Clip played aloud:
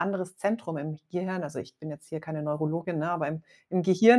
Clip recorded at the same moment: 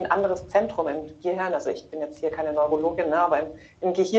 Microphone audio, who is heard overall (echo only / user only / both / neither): echo only